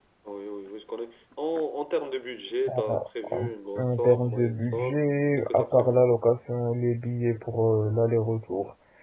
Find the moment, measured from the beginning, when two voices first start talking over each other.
2.7 s

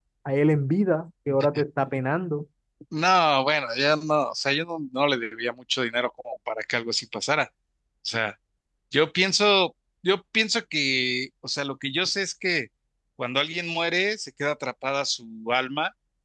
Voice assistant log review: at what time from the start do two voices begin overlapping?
none

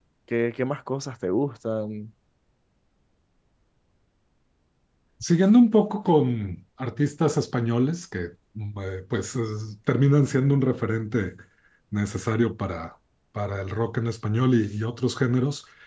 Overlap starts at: none

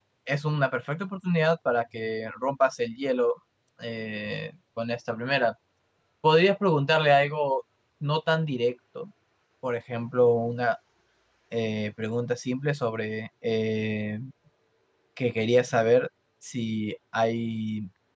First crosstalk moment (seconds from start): none

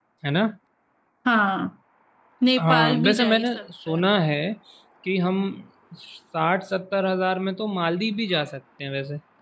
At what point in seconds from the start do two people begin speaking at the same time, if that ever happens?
2.6 s

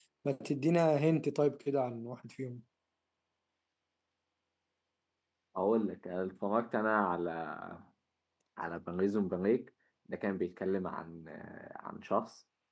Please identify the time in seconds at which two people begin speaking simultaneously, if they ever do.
none

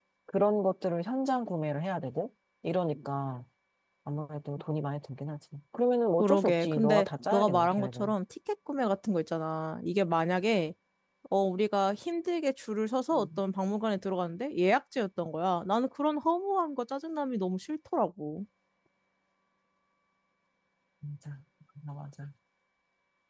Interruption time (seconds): 6.2 s

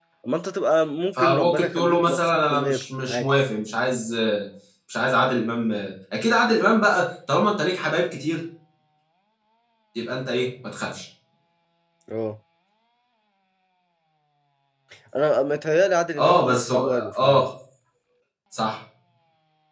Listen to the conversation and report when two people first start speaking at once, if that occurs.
1.1 s

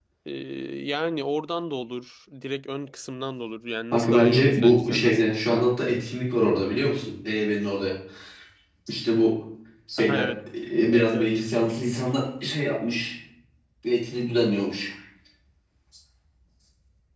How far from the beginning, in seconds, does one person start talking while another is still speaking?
3.9 s

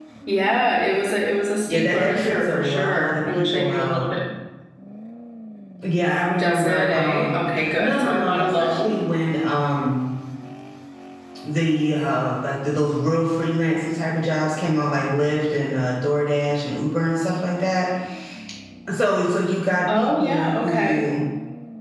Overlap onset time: 1.7 s

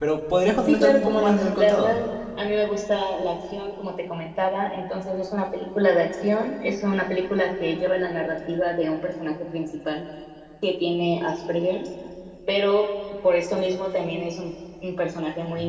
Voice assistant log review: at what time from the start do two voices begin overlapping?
0.7 s

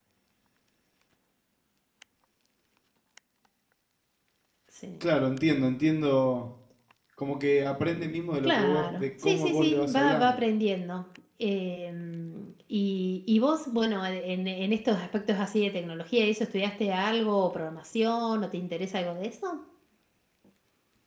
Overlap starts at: 8.4 s

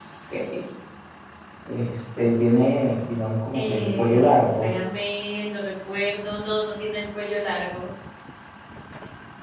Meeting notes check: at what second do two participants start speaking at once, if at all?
3.5 s

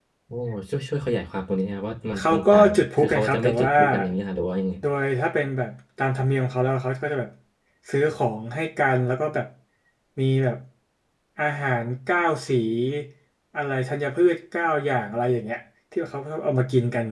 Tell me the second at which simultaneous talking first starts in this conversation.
2.2 s

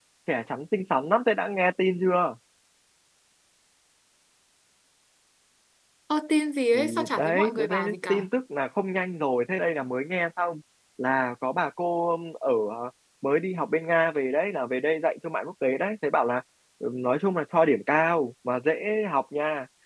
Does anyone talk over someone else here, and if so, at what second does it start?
6.7 s

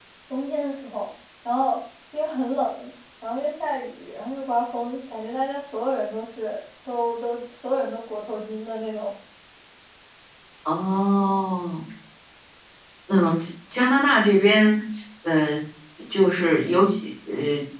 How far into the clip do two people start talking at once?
none

